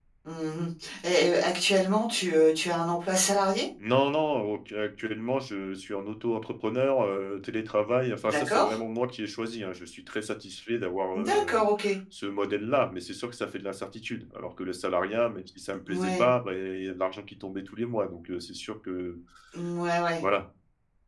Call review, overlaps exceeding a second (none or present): none